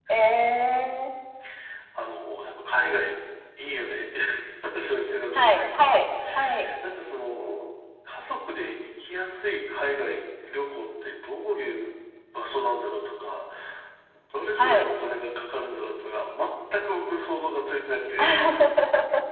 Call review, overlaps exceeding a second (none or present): none